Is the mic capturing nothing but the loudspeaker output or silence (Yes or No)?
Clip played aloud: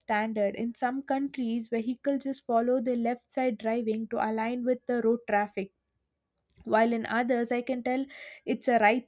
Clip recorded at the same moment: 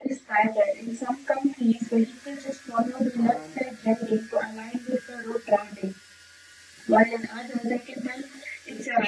No